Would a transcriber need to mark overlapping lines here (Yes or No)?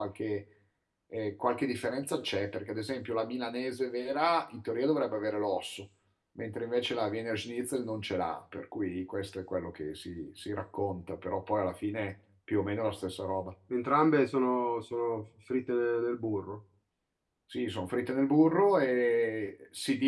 No